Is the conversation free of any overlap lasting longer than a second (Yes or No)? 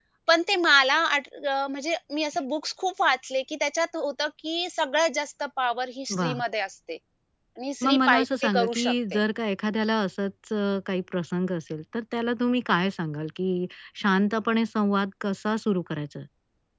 No